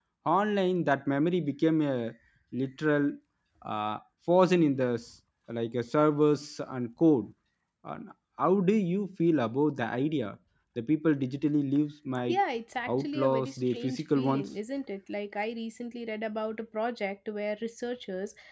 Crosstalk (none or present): present